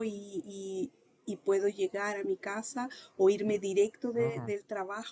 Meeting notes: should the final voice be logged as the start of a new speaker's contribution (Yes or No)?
No